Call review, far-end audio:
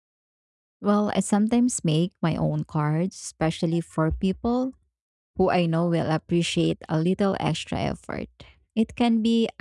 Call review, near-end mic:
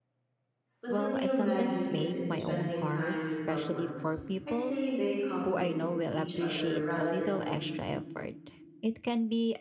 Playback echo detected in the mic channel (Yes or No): Yes